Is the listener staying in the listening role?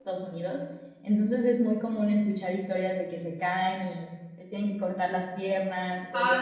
No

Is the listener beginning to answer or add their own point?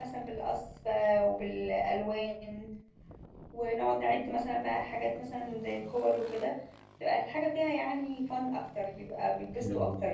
Yes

